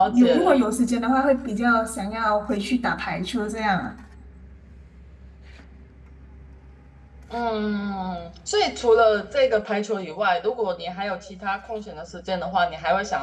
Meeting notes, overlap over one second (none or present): none